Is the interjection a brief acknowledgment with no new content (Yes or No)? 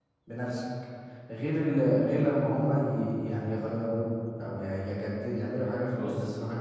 No